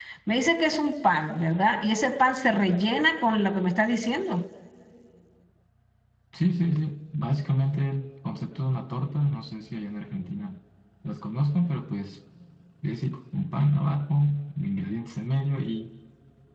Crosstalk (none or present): none